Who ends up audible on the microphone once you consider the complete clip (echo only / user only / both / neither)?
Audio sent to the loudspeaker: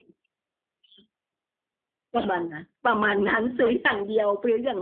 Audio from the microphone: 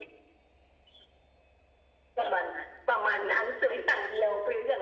echo only